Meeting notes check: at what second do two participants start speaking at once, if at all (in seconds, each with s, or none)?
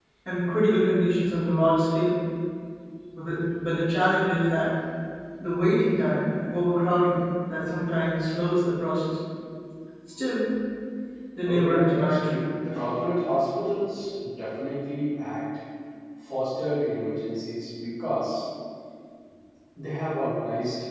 11.4 s